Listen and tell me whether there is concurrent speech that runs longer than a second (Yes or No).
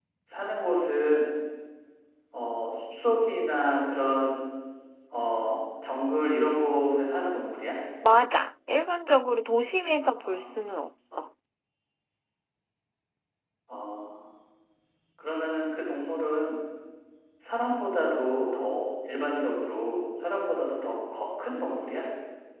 No